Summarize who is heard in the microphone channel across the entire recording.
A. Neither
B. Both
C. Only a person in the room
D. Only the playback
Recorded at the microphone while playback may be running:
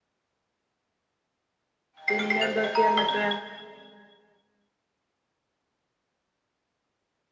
C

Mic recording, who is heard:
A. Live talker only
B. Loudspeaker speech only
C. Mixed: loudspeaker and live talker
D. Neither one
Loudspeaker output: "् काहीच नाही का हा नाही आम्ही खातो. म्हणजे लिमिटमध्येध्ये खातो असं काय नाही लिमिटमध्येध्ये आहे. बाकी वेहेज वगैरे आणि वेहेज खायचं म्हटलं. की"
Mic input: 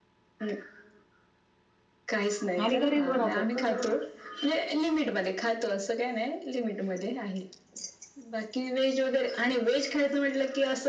C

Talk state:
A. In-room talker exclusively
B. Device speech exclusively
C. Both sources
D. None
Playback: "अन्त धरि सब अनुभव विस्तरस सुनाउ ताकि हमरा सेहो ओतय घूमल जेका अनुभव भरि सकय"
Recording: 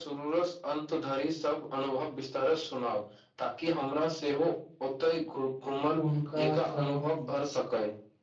C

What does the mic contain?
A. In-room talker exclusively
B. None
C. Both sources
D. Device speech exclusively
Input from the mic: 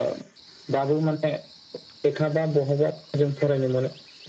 D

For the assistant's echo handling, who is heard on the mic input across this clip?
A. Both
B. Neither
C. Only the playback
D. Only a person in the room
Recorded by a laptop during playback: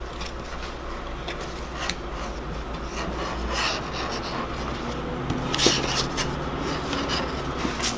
B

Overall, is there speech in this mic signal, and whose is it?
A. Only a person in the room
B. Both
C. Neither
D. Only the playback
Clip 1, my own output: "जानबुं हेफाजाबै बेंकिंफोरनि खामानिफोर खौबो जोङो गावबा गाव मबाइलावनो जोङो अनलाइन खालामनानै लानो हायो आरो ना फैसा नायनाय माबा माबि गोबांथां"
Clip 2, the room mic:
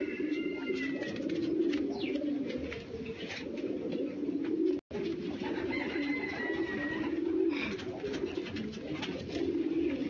C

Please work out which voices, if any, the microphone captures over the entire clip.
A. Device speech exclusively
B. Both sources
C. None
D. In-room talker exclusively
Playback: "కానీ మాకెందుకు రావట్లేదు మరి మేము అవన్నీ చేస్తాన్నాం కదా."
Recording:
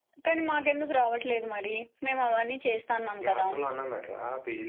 B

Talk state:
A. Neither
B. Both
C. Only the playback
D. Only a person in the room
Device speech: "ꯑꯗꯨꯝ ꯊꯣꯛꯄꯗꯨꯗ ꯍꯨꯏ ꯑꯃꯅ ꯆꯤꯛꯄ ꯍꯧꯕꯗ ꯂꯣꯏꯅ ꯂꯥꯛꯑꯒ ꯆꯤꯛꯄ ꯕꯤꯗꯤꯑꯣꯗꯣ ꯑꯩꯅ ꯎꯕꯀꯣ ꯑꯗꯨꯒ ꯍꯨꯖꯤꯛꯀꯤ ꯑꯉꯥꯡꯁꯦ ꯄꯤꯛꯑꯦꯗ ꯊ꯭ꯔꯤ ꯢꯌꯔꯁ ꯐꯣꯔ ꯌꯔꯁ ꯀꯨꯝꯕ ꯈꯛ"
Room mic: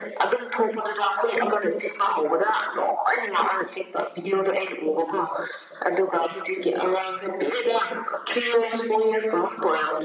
C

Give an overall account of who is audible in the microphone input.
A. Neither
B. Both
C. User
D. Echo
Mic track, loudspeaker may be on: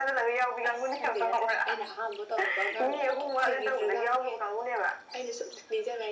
D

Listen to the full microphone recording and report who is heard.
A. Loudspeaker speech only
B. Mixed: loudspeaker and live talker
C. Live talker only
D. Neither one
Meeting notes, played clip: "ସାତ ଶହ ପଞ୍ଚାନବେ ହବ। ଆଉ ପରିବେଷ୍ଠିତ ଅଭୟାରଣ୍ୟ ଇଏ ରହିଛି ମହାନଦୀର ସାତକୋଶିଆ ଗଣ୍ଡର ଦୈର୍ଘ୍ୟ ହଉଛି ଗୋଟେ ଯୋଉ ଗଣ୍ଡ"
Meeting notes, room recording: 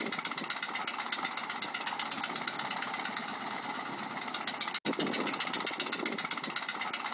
D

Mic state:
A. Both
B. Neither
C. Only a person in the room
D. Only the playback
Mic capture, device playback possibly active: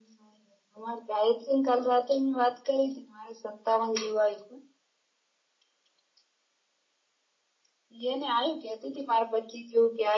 D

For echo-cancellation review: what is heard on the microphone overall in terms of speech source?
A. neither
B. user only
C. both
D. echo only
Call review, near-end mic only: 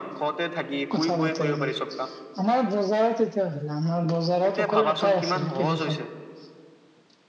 C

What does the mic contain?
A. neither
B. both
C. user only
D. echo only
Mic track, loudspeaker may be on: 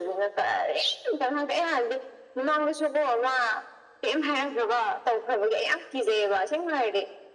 D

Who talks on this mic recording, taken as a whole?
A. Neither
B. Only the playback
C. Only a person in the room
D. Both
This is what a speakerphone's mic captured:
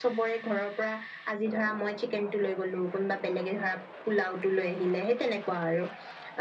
B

